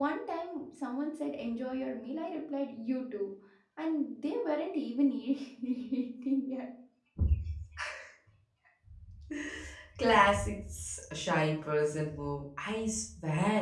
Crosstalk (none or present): none